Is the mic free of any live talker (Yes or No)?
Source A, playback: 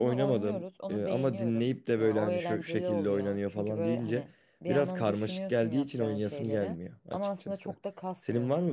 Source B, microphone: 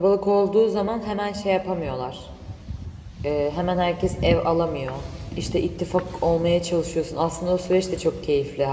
No